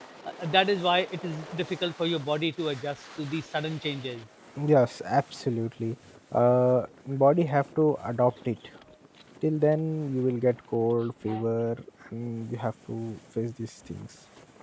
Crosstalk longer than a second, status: none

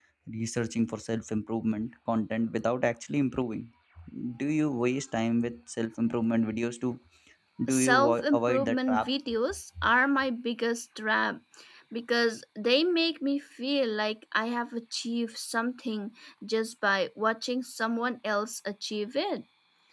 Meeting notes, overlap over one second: present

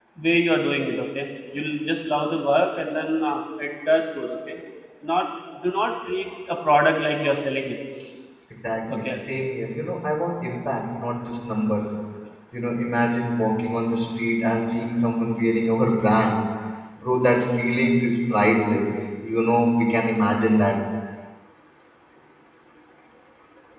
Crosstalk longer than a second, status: none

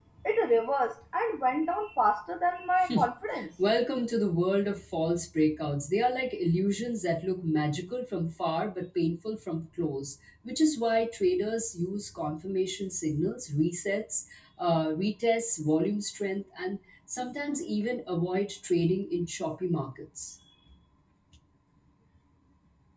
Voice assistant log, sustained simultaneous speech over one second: none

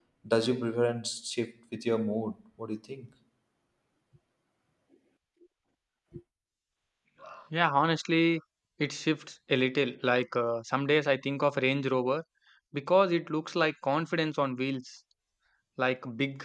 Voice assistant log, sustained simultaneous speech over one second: none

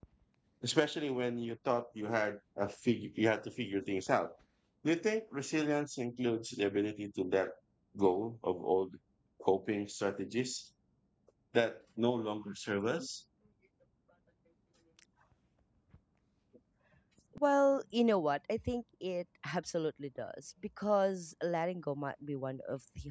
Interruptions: none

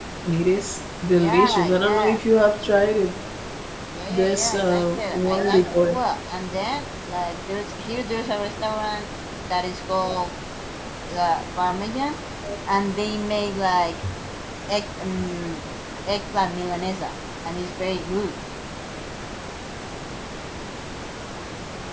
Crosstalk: present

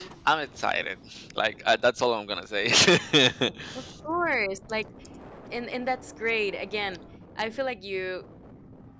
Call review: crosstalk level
none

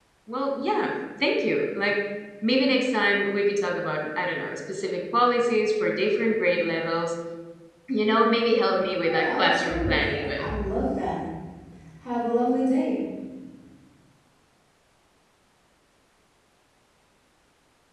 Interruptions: present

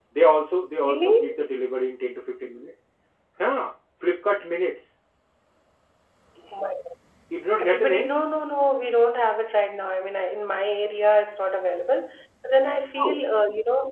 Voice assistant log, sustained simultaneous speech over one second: none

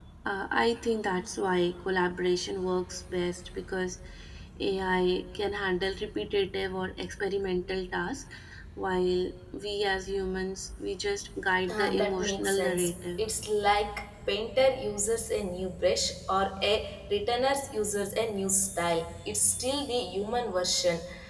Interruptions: present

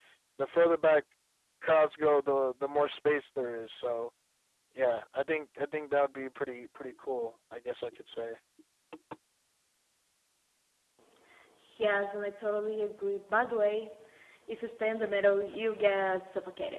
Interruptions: none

